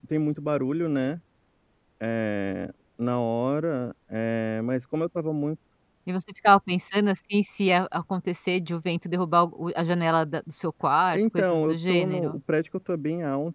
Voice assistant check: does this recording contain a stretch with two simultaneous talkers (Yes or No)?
Yes